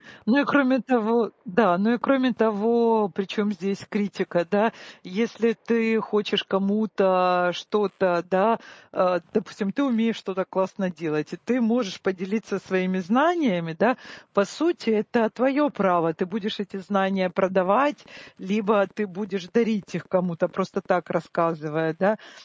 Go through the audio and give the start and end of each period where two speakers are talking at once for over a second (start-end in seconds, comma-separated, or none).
none